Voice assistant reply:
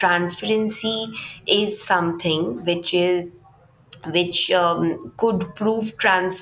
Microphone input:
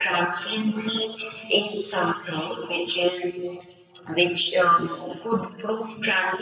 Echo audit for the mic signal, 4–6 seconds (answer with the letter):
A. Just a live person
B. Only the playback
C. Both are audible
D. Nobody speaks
B